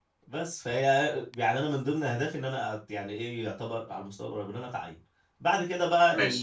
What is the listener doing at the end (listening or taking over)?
listening